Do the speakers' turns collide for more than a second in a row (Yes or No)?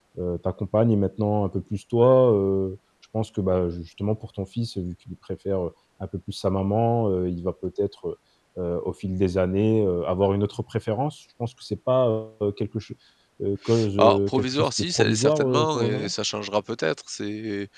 Yes